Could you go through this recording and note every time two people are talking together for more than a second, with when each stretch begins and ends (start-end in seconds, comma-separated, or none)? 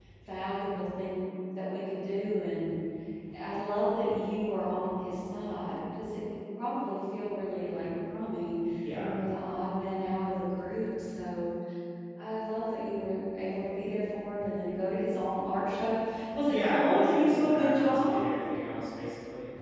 16.5-18.2